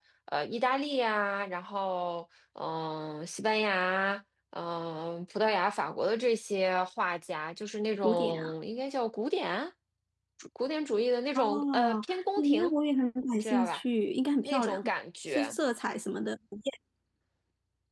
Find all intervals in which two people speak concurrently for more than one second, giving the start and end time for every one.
11.3-12.7

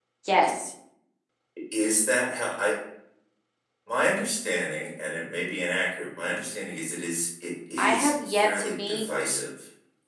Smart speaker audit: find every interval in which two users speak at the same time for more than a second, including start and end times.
7.8-9.0

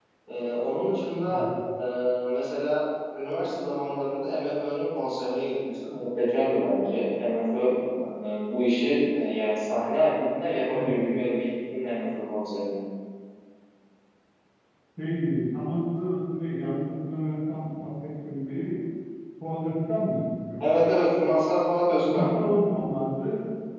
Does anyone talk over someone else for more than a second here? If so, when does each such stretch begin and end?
none

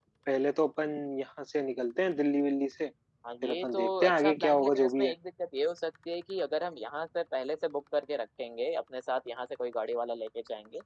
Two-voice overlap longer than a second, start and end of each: 3.4-5.1

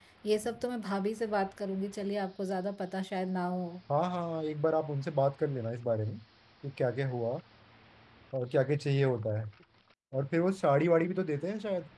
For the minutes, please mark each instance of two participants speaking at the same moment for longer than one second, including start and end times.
none

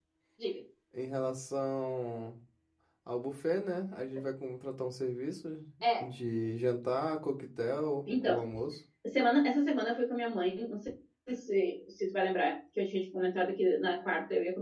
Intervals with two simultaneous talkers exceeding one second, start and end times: none

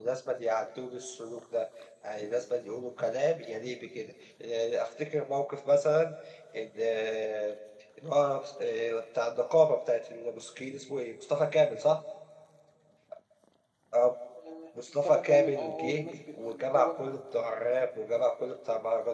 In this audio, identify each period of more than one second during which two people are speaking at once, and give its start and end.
15.0-17.2

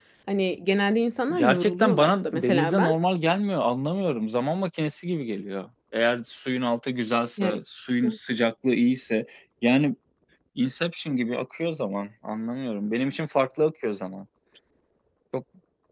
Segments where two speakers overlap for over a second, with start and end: 1.3-3.0

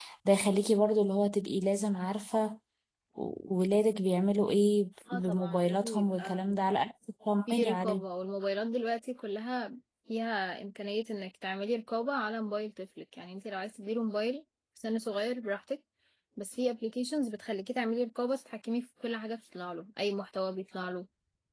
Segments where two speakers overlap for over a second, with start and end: 5.1-6.4

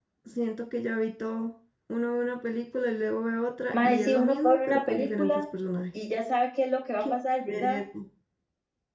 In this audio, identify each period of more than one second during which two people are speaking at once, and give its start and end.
3.8-5.4

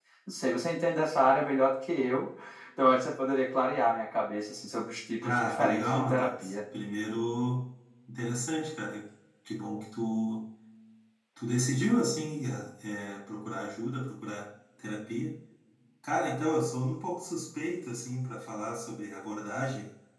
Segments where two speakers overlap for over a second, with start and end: 5.2-6.5

